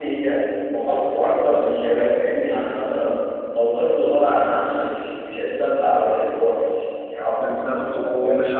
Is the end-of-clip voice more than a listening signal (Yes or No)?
Yes